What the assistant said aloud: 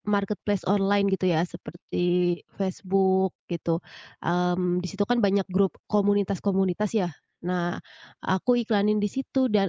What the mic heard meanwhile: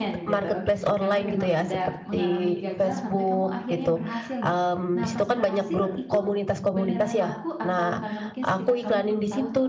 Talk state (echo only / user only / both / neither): both